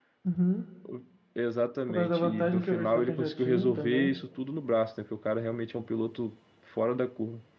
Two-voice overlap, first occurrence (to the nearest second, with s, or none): 2 s